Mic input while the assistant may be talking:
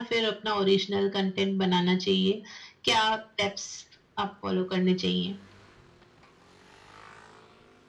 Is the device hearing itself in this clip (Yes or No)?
Yes